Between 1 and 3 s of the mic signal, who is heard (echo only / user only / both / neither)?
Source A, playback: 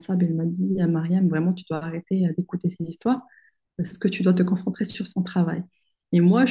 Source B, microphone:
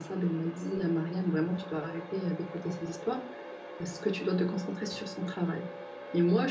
echo only